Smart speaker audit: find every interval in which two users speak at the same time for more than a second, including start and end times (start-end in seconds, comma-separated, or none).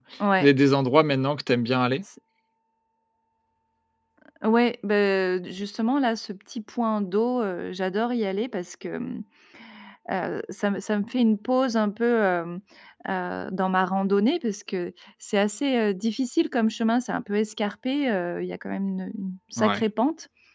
none